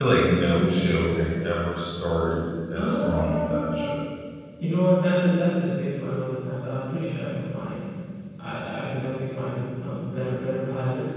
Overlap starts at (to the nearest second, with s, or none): 3 s